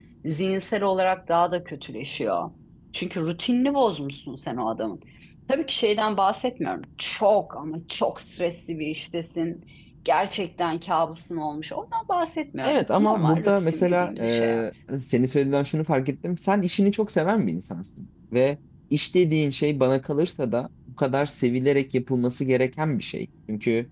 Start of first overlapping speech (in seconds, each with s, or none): 12.6 s